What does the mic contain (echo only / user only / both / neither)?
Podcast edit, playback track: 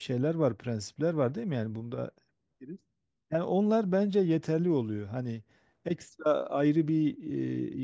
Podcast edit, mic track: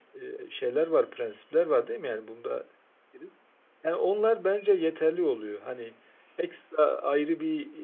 echo only